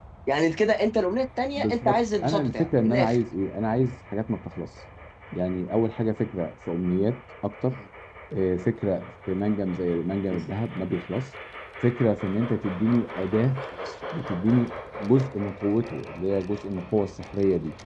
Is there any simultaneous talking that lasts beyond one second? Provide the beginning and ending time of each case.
1.6-3.2

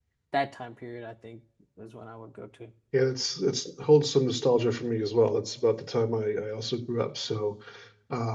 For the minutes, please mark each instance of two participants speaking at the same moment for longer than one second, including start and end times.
none

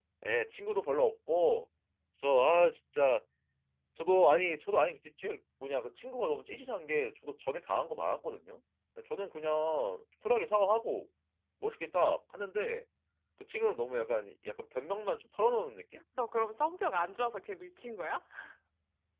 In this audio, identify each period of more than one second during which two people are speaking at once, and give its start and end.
none

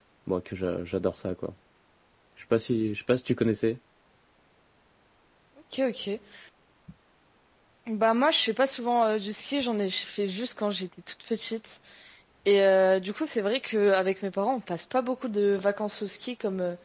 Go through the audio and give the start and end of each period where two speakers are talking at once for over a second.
none

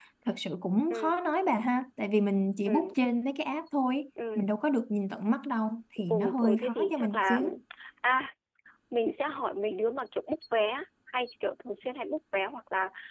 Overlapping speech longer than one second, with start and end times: 6.1-7.4

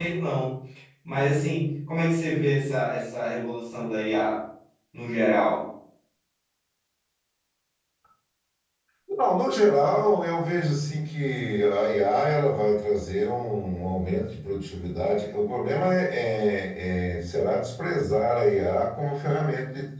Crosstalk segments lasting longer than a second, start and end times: none

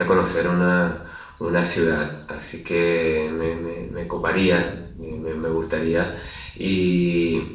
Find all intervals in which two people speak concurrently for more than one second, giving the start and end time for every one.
none

